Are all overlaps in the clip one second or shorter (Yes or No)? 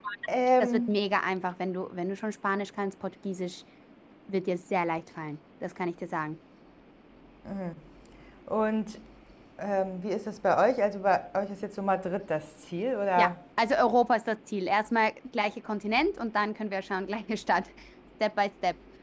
Yes